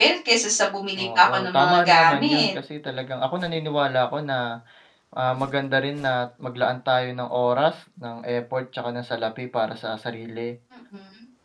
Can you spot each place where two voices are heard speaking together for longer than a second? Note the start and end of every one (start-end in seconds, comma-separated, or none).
1.2-2.5